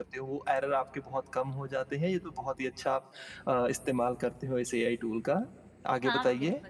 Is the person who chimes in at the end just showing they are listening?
No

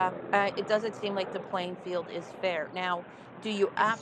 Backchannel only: Yes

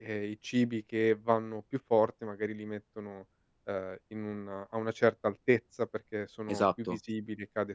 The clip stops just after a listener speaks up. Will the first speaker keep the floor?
Yes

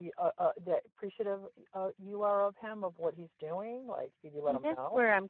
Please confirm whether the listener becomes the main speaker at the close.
Yes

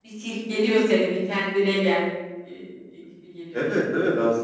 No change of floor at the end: No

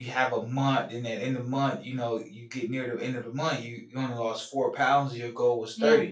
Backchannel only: Yes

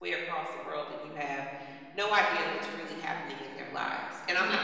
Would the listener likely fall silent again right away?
Yes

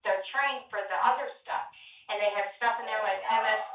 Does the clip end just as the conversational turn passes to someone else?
No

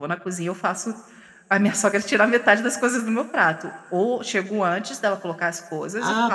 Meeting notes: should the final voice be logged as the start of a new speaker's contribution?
Yes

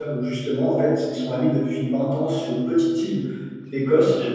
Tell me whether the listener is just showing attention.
Yes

